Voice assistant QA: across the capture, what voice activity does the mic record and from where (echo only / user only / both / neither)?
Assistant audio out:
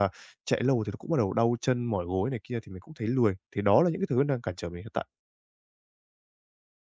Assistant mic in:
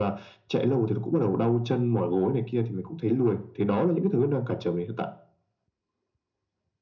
echo only